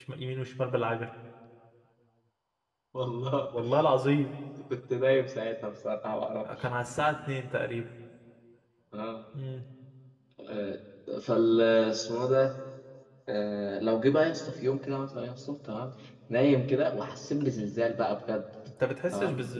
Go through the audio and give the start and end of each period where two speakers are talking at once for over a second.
none

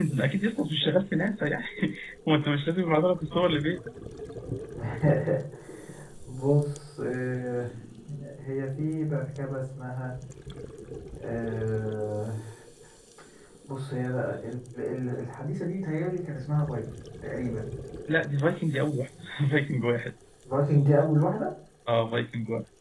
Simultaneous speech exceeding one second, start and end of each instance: none

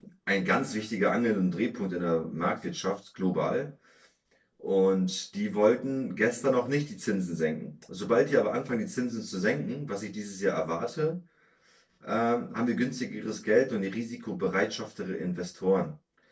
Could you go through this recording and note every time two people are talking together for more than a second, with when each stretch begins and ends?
none

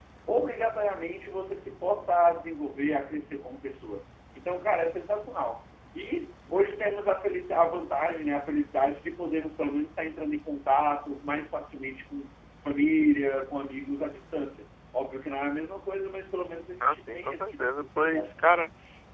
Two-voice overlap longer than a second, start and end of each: 16.8-18.5

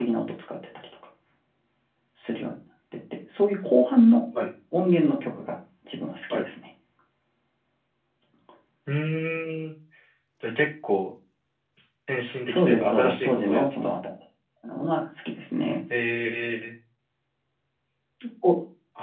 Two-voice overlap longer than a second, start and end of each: 12.5-13.9

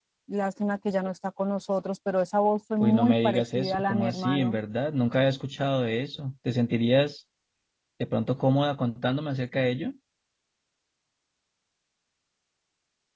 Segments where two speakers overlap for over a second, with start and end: 2.8-4.6

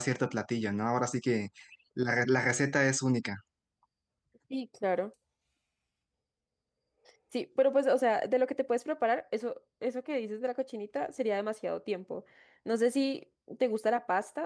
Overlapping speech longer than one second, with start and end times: none

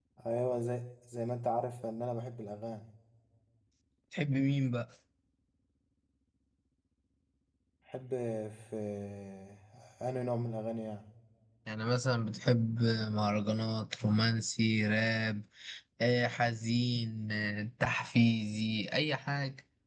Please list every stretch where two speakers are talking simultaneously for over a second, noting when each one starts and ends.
none

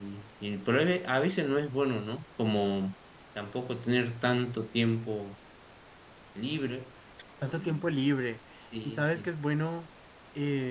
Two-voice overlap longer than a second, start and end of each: none

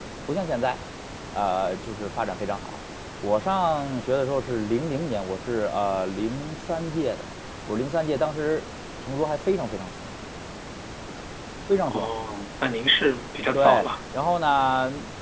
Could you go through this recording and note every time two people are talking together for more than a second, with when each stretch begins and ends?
none

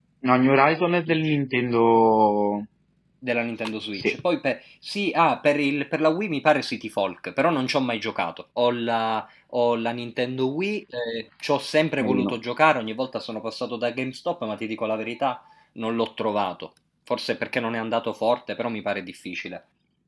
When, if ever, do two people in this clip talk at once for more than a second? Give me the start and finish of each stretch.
none

